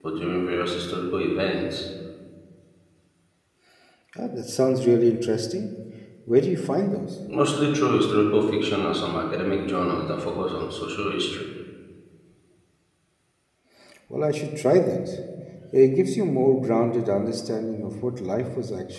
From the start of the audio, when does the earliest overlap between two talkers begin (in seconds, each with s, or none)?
none